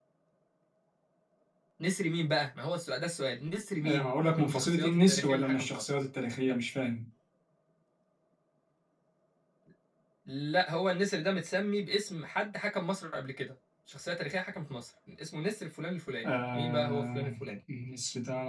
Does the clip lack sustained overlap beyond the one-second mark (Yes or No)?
No